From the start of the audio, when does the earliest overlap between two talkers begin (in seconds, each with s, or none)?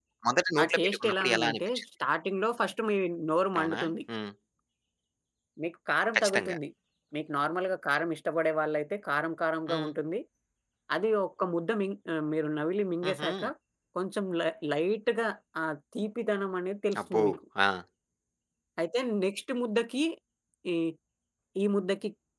0.6 s